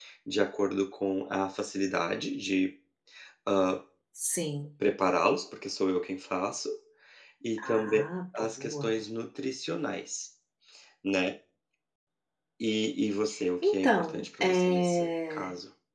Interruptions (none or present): present